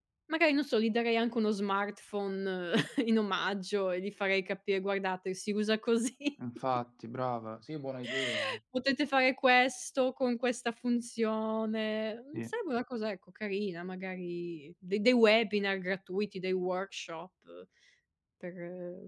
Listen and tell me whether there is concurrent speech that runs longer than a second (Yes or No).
No